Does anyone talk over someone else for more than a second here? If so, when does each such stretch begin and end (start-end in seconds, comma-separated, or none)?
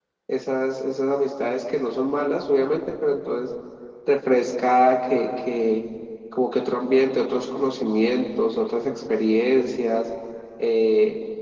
none